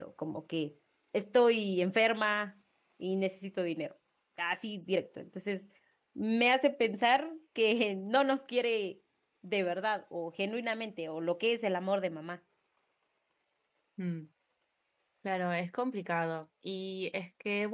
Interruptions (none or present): none